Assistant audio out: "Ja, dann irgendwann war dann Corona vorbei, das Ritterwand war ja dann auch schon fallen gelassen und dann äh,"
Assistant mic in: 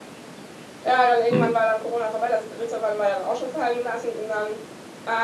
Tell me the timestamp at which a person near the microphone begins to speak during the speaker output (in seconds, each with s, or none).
1.3 s